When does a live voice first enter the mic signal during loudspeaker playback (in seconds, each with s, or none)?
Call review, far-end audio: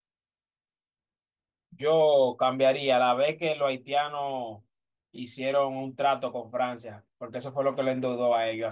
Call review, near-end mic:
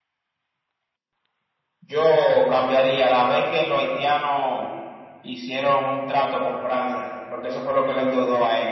none